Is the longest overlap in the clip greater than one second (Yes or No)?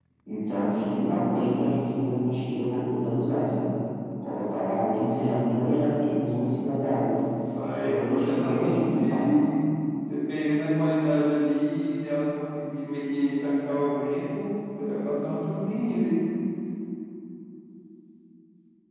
Yes